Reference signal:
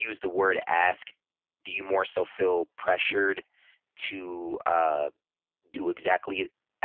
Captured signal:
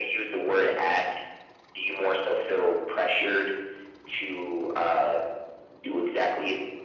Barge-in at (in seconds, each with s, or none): none